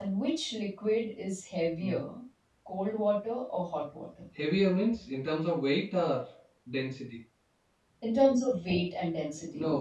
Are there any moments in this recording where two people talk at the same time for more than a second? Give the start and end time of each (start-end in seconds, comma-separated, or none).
none